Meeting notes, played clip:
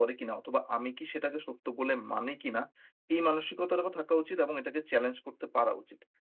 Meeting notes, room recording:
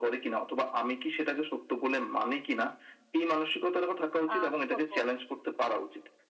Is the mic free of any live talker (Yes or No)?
No